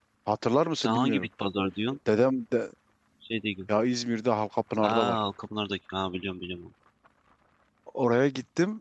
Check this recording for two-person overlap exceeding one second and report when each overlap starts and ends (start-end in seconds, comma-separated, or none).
none